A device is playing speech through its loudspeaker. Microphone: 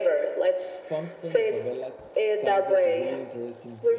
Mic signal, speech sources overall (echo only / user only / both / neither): both